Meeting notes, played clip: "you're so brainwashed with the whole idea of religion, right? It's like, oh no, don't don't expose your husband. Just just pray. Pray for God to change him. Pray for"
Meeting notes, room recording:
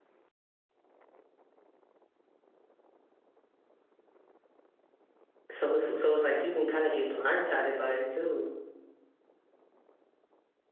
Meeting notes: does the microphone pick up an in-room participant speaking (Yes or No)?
Yes